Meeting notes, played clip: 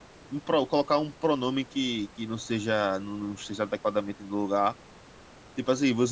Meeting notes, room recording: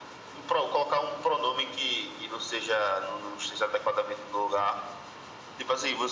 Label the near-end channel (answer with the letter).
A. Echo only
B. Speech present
A